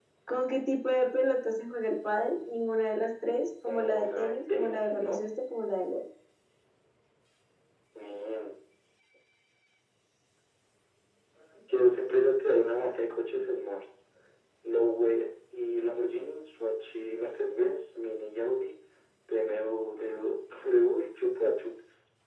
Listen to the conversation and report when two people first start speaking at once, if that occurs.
3.6 s

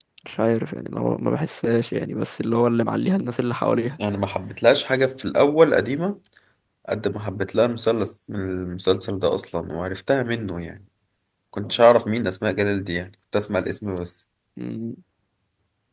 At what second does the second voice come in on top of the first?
none

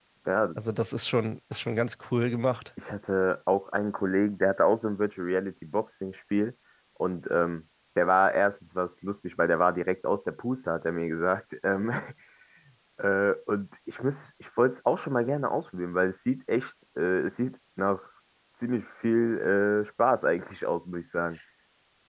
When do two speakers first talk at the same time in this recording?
none

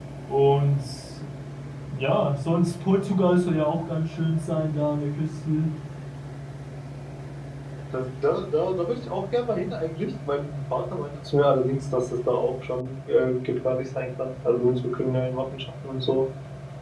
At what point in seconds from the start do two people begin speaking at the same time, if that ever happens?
none

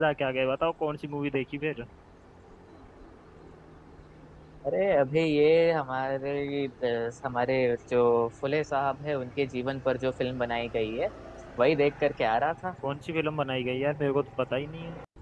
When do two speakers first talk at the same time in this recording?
none

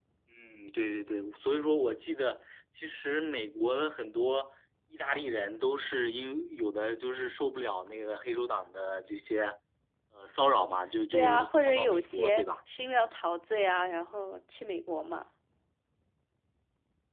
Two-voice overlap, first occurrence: 11.1 s

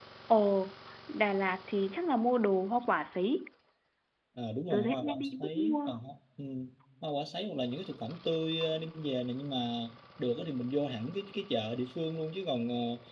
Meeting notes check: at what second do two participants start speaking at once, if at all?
4.7 s

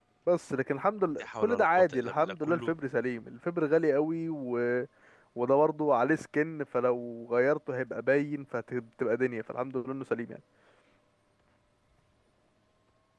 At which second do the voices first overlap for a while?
1.2 s

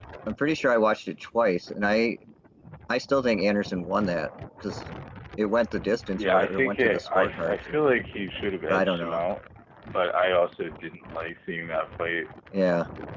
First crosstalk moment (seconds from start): 6.1 s

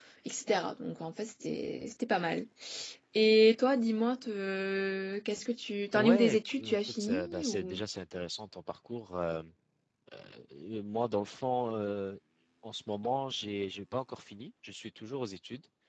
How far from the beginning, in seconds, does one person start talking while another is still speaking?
5.9 s

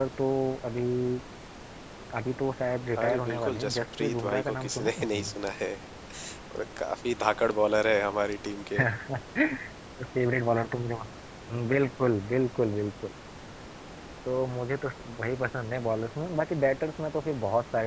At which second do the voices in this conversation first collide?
3.0 s

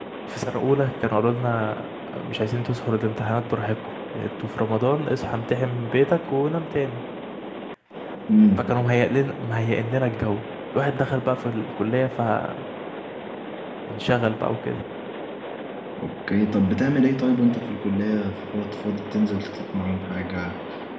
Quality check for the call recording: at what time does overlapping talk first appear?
none

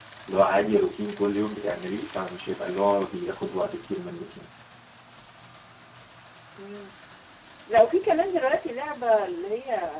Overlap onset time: none

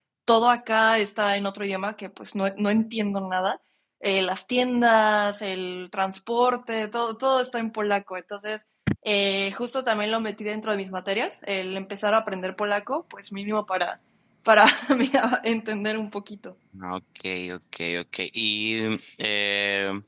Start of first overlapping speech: none

